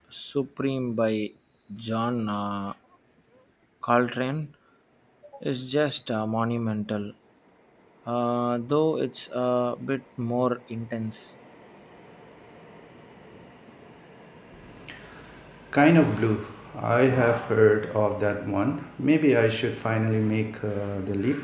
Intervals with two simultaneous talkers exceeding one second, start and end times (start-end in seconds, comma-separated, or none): none